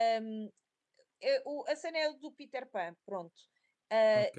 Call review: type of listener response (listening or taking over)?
listening